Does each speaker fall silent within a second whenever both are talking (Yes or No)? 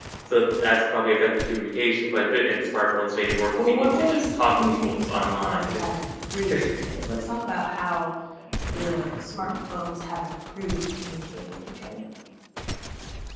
No